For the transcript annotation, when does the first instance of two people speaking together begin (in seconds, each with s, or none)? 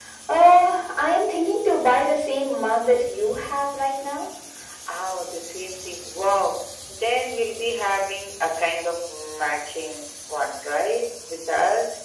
none